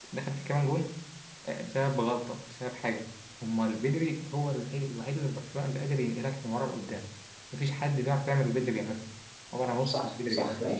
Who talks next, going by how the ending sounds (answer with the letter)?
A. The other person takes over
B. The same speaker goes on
A